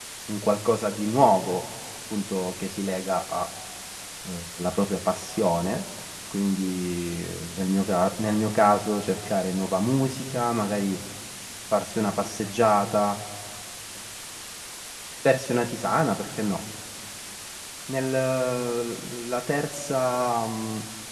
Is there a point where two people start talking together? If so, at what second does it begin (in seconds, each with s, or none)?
none